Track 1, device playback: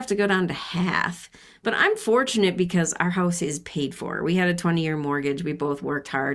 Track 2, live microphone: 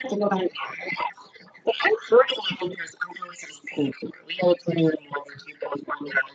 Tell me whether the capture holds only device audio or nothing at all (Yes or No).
Yes